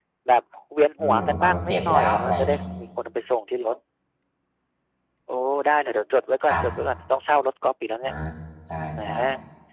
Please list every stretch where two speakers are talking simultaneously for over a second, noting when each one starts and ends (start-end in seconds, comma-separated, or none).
1.0-2.6